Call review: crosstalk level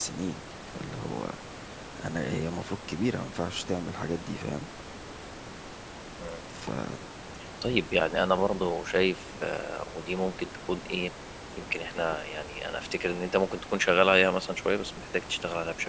none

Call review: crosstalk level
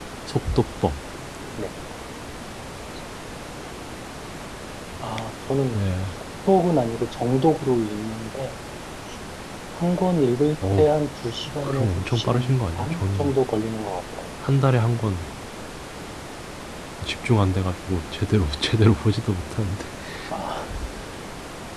present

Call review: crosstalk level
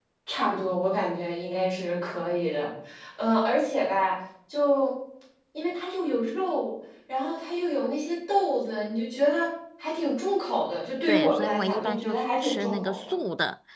present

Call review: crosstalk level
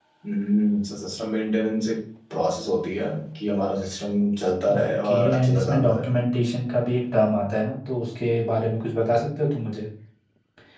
present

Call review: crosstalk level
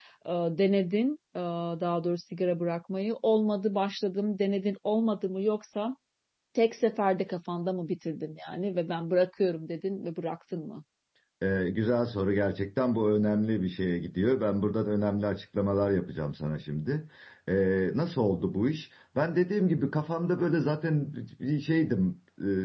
none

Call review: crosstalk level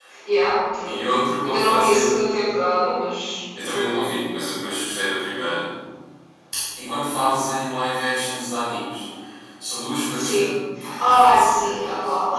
present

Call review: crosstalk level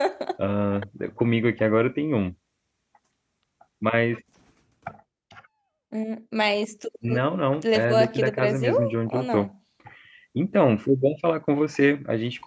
present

